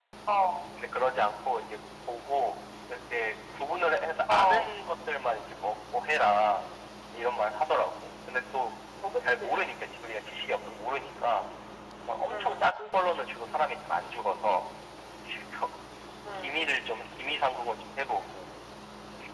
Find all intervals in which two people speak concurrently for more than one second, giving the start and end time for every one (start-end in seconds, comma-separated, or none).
none